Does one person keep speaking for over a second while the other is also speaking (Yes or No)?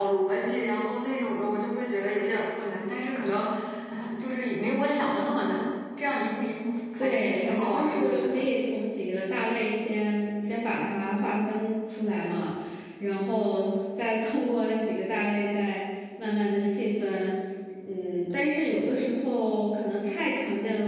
Yes